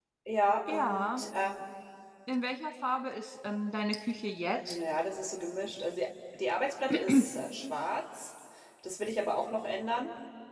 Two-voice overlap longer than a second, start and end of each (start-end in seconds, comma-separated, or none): none